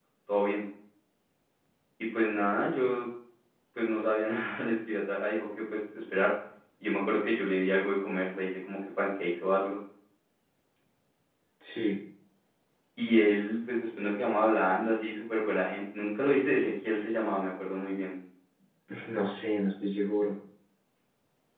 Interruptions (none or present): none